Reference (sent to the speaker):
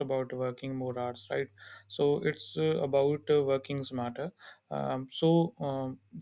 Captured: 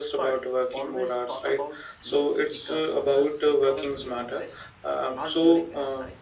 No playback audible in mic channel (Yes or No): No